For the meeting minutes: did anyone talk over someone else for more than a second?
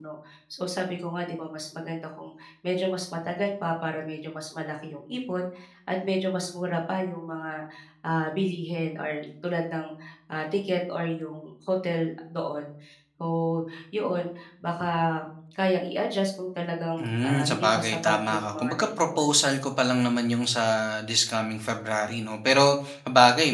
Yes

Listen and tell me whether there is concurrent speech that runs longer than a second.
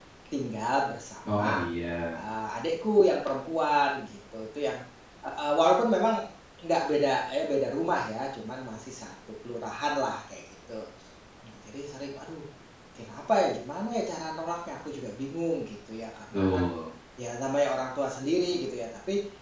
No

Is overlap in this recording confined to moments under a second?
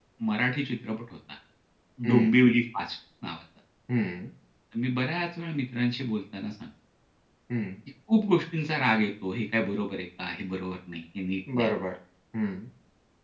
Yes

